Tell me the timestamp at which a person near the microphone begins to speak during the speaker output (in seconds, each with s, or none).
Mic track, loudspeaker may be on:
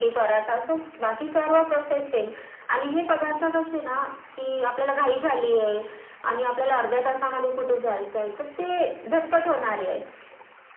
none